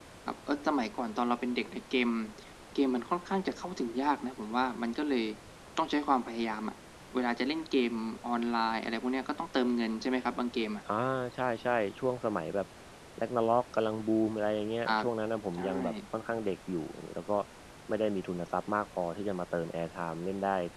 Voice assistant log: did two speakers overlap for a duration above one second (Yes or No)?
No